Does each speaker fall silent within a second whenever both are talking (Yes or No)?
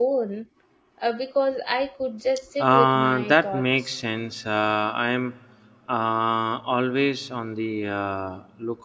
No